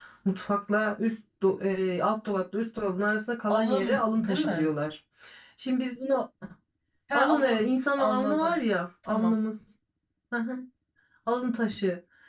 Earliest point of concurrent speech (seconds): 3 s

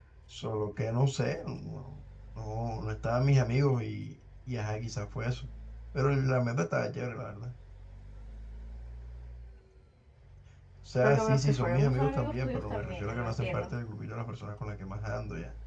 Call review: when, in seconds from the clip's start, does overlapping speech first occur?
11 s

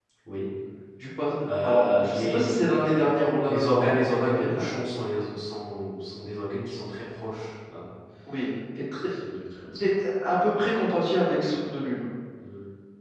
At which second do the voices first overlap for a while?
2 s

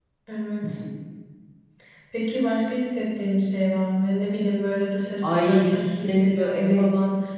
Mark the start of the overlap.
5 s

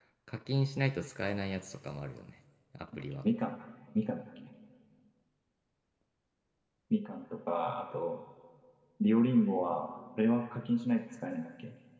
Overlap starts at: none

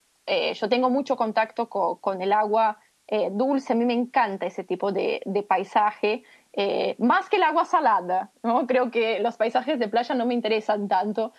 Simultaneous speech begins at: none

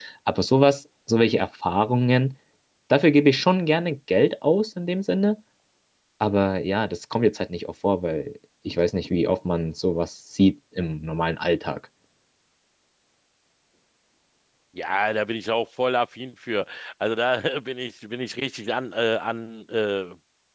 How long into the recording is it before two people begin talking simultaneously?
none

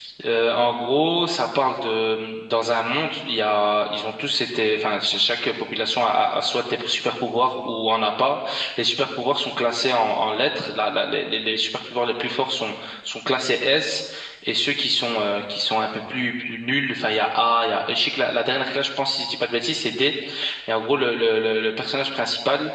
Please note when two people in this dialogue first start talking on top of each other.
none

